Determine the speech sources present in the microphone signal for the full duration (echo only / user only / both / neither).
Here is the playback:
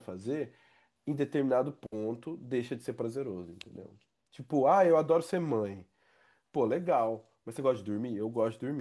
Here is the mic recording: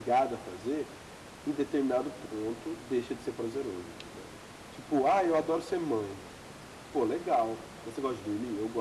echo only